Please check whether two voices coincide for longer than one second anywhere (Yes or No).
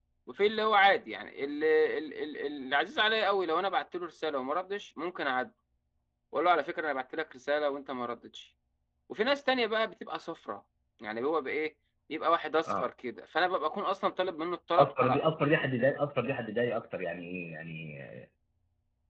No